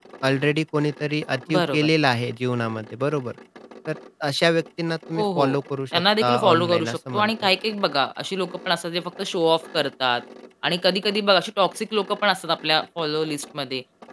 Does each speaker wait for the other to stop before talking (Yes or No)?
No